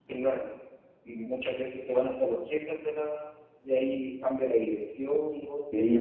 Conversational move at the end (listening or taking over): taking over